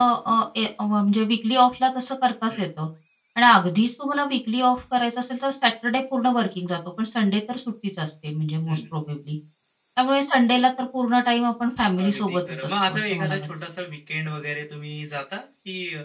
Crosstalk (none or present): present